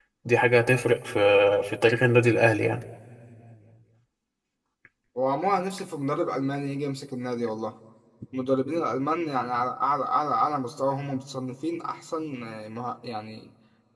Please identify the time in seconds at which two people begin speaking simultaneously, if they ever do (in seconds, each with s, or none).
none